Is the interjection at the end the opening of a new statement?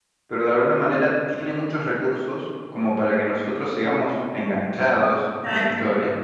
Yes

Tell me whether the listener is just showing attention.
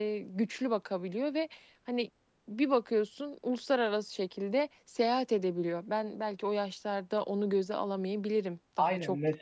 Yes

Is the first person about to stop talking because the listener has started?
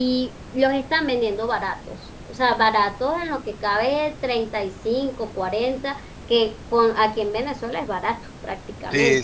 Yes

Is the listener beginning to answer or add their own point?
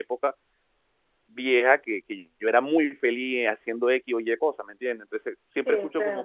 No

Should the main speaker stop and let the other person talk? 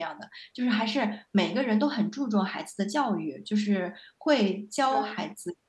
No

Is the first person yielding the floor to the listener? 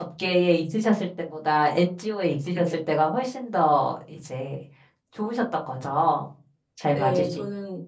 Yes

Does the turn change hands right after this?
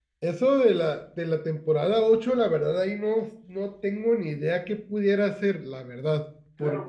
Yes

